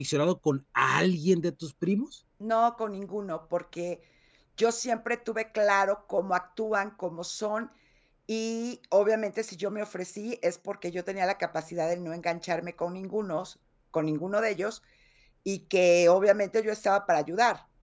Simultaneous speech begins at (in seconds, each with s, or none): none